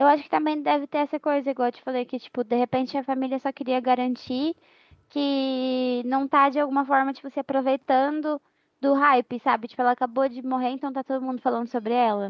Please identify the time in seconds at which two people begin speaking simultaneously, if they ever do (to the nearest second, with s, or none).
none